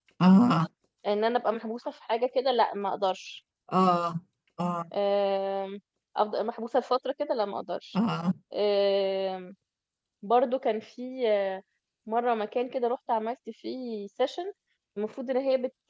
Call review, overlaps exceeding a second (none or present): none